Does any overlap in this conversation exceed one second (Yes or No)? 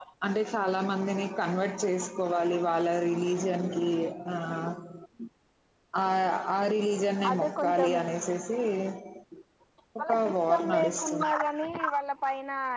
Yes